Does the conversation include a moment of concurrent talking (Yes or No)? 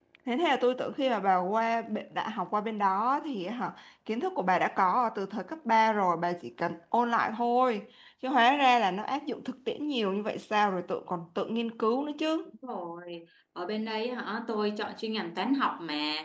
No